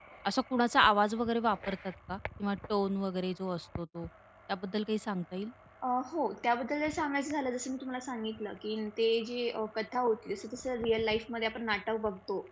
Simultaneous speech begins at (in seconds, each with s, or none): none